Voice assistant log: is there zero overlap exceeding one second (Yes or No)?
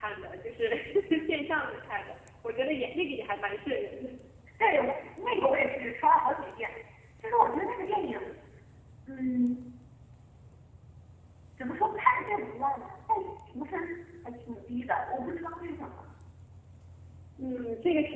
Yes